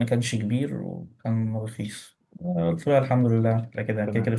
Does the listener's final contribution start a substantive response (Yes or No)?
No